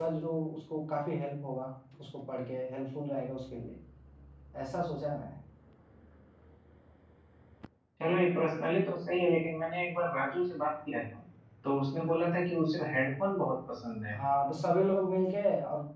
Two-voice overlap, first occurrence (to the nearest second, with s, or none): none